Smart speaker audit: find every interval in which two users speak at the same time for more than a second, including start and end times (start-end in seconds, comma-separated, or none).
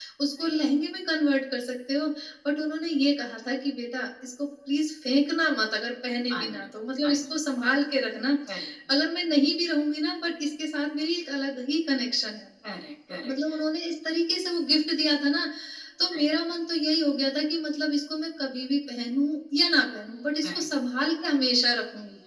none